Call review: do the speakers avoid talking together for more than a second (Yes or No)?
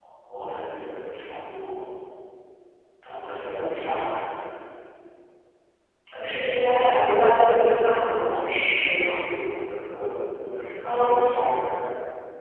No